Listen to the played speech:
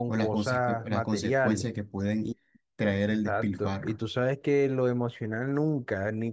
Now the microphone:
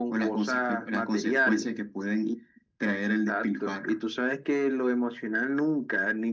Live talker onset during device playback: none

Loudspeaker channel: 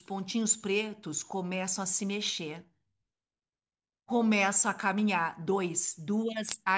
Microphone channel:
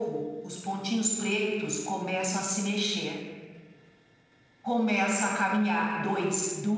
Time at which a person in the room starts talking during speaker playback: none

